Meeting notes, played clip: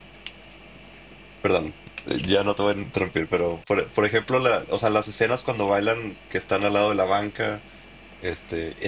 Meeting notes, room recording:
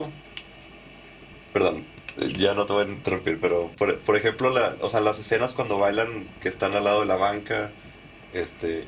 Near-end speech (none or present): none